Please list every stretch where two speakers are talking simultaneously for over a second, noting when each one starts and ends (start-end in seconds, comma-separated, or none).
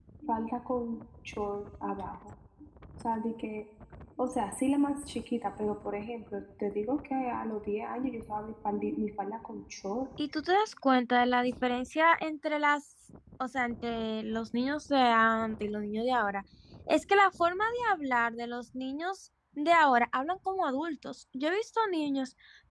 none